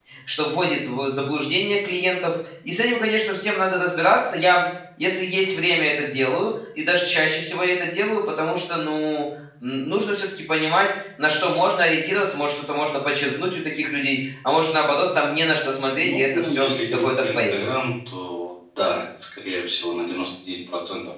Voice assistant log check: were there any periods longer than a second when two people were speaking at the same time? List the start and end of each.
16.0-17.5

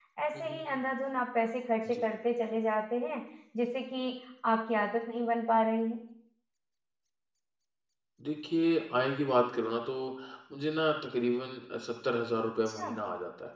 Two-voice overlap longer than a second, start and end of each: none

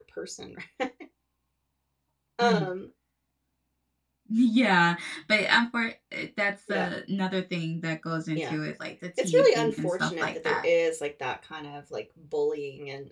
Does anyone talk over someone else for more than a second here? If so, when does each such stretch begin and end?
9.2-10.6

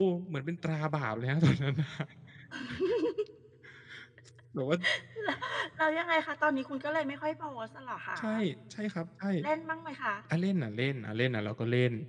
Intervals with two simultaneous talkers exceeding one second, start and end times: none

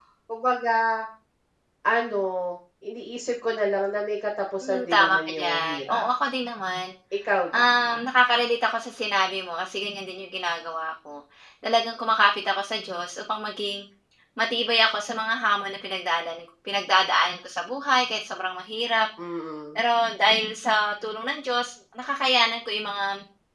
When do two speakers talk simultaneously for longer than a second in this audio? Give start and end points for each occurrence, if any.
4.6-6.1

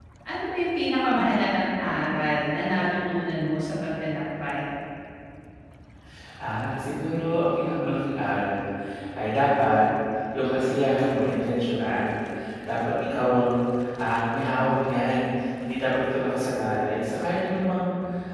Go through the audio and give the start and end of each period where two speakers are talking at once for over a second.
none

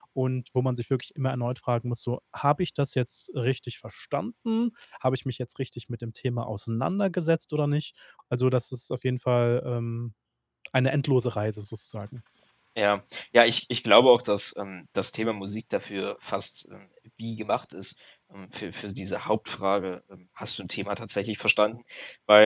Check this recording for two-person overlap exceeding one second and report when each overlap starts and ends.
none

